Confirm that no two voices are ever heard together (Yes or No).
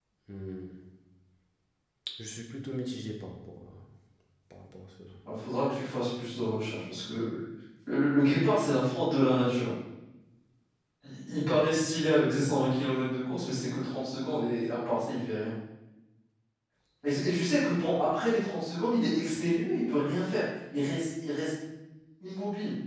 Yes